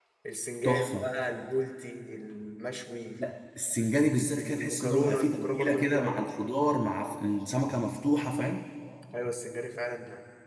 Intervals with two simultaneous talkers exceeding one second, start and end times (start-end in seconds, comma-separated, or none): 4.4-6.2